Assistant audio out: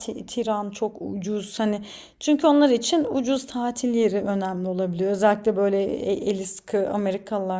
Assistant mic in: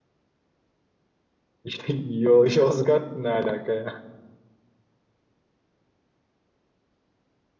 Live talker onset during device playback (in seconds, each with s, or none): 1.6 s